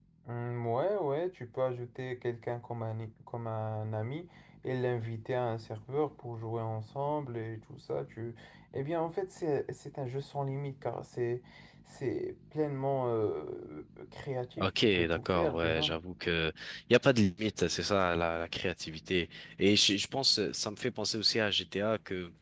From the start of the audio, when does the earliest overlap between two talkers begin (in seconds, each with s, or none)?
14.6 s